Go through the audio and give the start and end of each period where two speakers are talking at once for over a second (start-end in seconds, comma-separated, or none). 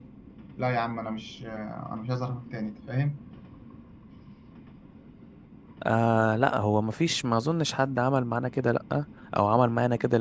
none